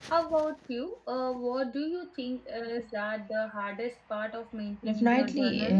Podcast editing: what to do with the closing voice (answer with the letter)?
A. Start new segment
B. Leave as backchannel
A